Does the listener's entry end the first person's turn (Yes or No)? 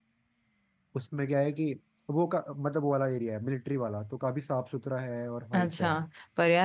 Yes